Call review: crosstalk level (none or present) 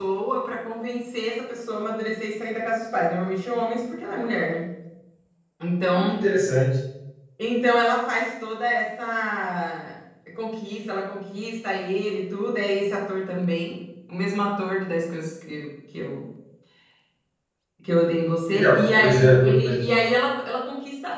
present